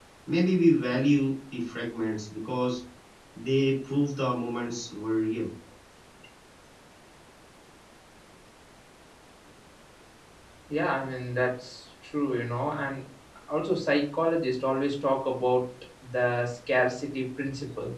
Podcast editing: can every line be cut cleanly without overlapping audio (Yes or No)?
Yes